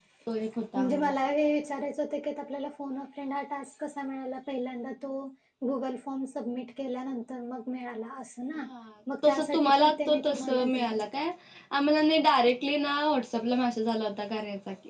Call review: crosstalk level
present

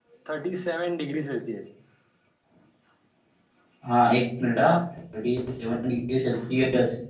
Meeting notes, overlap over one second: none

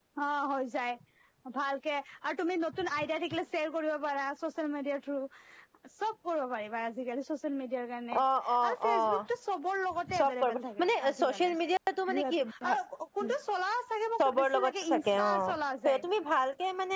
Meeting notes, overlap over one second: present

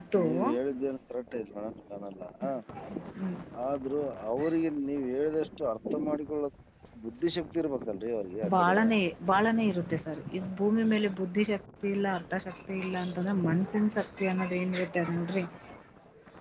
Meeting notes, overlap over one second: none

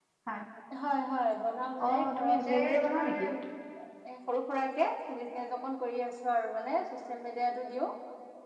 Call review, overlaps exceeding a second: present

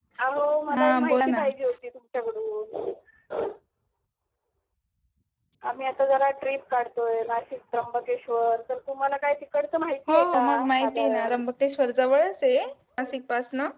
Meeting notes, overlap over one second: present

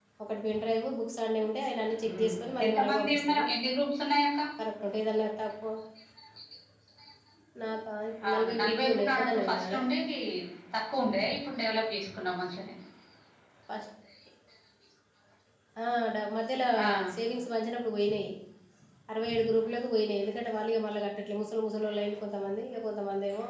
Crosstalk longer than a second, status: present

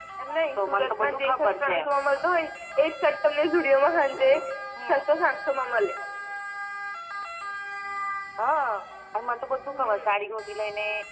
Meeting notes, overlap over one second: present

